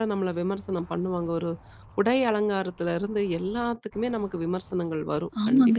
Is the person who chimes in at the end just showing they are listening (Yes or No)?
Yes